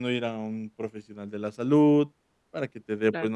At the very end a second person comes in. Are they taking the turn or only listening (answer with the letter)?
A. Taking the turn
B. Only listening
B